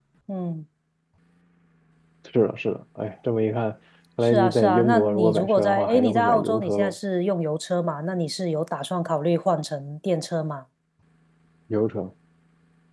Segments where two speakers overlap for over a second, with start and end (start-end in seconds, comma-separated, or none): 4.2-6.9